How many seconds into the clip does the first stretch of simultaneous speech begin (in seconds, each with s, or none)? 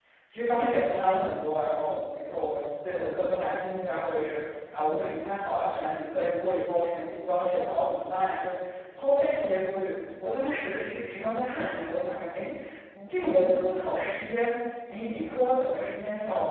none